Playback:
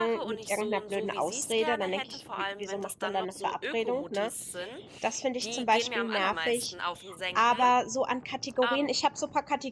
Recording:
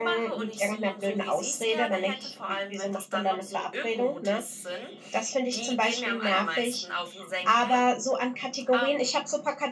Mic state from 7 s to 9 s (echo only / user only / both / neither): echo only